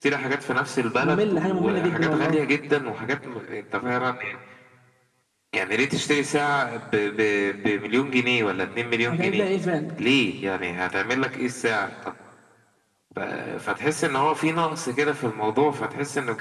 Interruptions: present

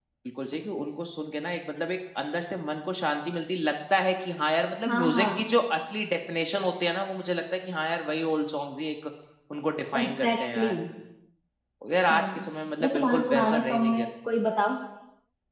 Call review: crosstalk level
present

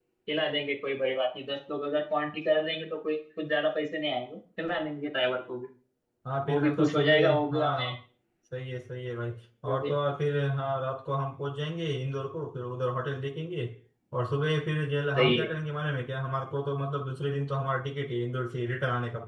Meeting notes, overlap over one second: present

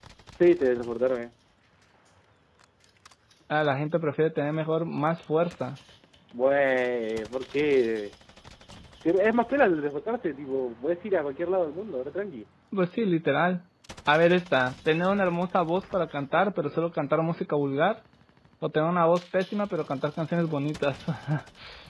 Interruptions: none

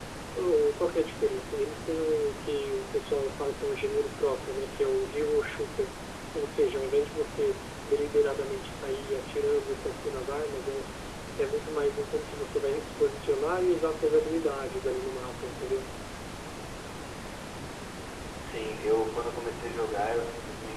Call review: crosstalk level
none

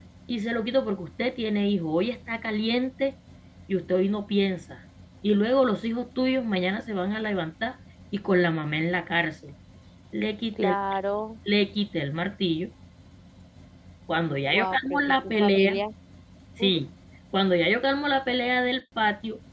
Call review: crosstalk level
present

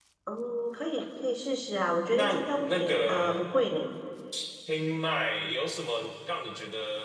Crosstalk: present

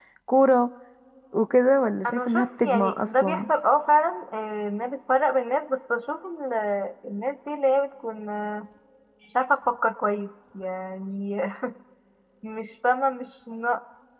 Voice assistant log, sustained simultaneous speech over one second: present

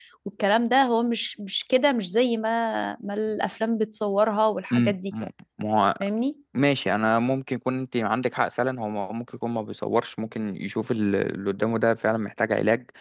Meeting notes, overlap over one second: none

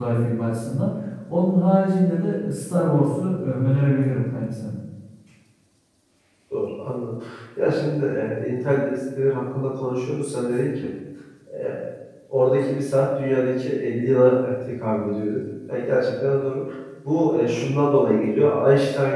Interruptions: none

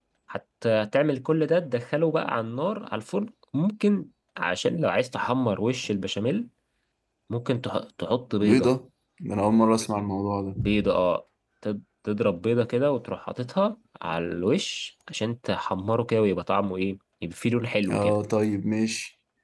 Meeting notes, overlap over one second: none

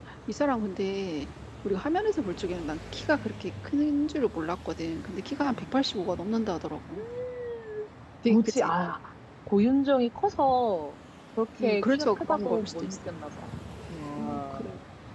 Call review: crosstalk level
present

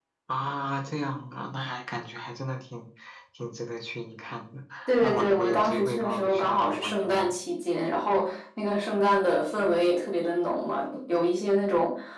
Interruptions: present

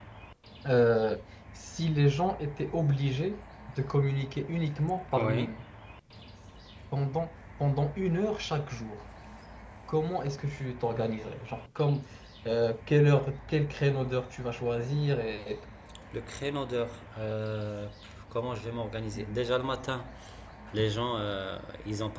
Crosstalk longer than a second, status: none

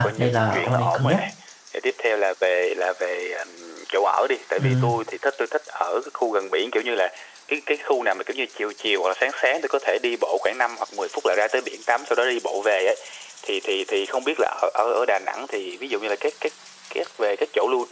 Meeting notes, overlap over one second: present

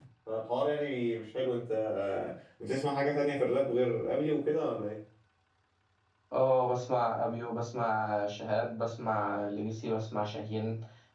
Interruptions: none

